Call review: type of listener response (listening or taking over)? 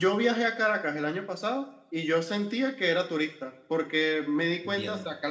listening